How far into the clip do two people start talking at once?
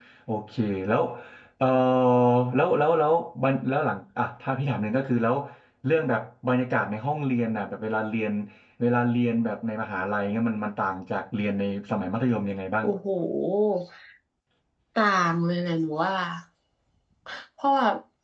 none

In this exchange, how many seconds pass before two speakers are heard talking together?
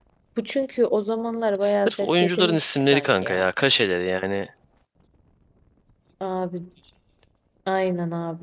1.6 s

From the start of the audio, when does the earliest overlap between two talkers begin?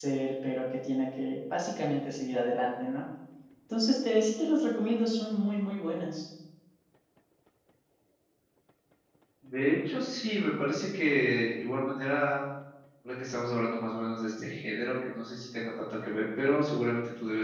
none

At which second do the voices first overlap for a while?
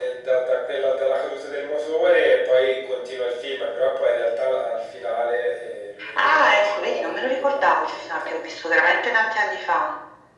6.2 s

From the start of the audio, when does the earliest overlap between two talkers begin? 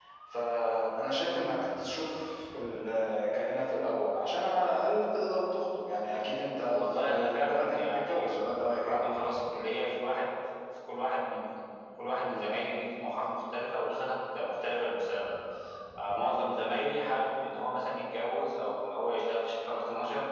6.6 s

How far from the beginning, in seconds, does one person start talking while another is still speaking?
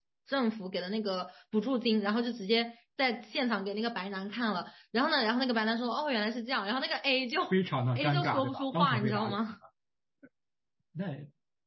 8.0 s

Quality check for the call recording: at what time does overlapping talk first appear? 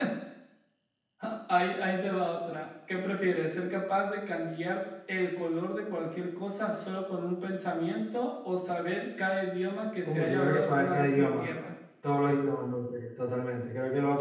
10.0 s

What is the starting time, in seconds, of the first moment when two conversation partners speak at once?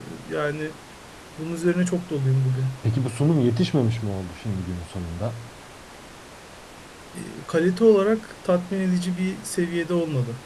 none

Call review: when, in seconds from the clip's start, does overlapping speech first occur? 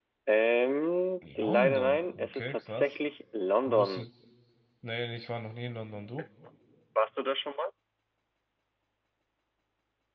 1.4 s

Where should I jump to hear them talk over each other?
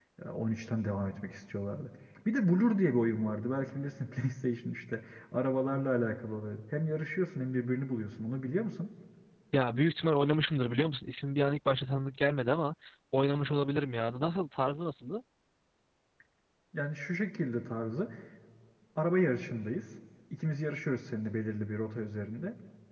none

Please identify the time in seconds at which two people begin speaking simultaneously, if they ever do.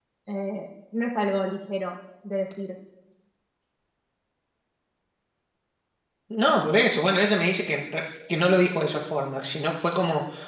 none

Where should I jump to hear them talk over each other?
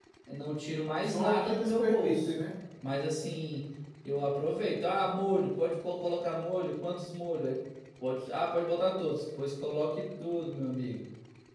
1.0 s

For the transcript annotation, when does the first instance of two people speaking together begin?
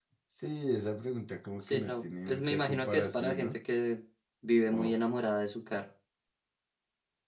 1.6 s

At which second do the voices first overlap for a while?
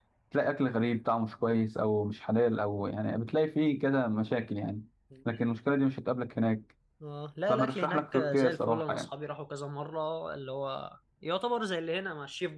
7.5 s

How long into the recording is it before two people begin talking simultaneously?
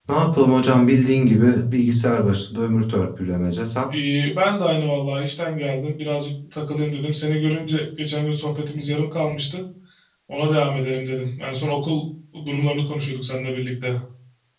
none

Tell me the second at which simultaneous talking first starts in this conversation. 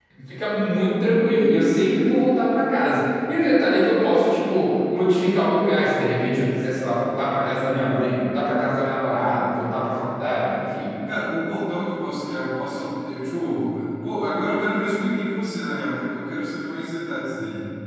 none

